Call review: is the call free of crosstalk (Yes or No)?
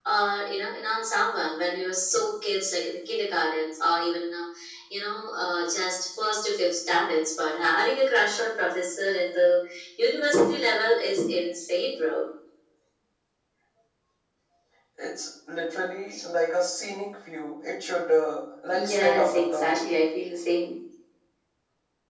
No